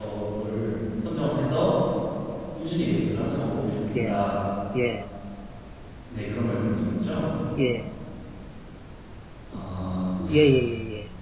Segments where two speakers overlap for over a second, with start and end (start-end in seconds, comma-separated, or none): none